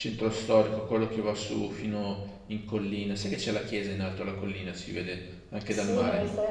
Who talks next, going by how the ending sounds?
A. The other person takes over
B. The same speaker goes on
A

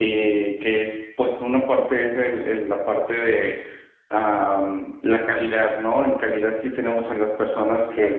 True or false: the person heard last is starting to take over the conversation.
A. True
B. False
B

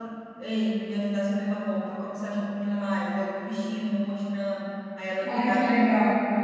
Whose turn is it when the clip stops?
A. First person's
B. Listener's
B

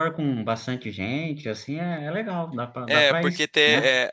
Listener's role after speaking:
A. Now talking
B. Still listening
A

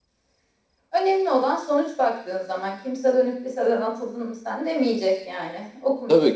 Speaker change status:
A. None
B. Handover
B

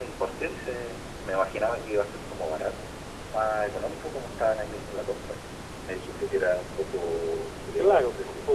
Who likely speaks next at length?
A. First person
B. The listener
B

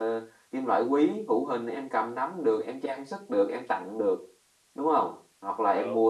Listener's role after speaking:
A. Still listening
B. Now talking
A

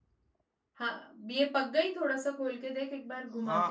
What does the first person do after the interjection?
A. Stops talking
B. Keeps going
A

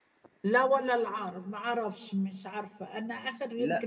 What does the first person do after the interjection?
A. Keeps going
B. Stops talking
B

